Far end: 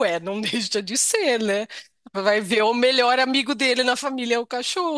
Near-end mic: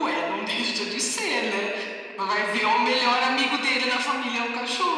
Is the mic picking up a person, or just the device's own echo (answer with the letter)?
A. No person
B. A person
A